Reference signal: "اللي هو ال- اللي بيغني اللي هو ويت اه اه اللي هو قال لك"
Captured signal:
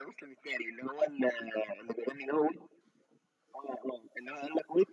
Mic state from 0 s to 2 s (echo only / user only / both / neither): echo only